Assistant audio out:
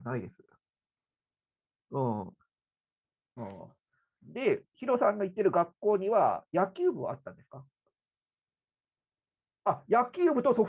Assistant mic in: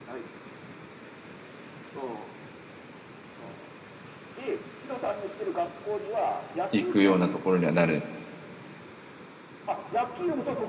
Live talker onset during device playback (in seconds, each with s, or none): 6.7 s